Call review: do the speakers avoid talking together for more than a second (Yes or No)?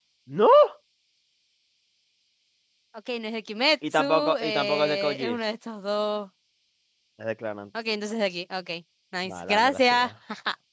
No